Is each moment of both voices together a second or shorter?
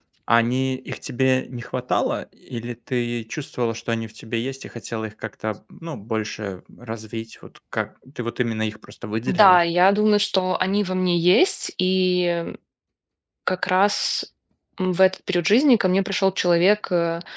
Yes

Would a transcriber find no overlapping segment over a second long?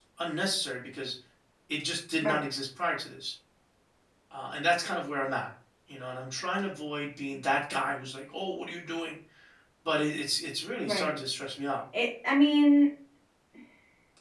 Yes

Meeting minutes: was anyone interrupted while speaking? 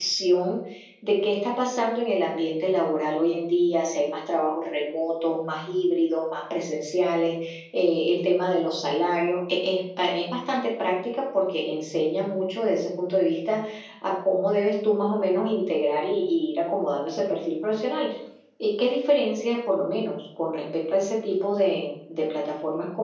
No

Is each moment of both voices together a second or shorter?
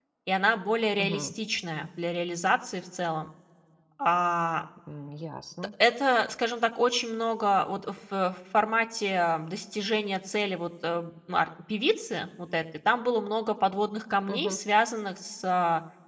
Yes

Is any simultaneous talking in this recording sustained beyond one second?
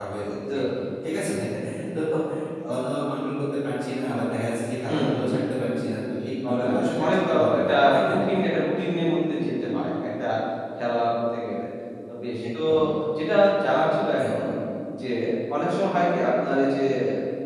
Yes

